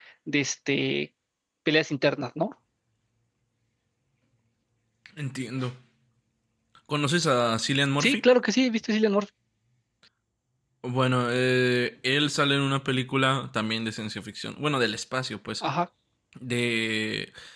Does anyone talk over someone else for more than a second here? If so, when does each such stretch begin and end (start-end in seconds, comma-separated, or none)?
none